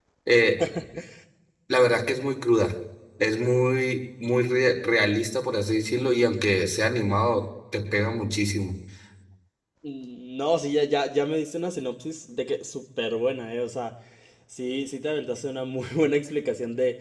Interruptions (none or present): none